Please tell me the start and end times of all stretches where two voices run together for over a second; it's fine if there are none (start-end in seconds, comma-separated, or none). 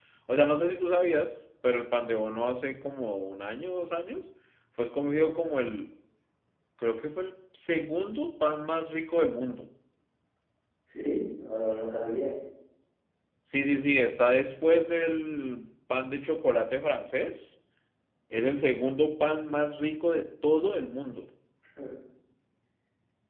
none